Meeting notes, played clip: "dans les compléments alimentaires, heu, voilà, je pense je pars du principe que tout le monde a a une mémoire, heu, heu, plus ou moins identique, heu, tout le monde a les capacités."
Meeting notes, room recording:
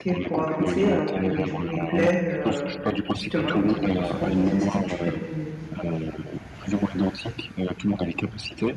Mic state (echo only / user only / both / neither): both